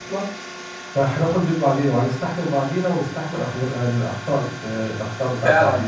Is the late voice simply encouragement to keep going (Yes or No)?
No